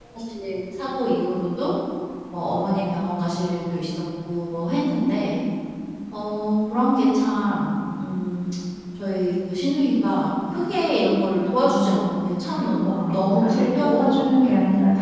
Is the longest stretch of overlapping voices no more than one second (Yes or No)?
No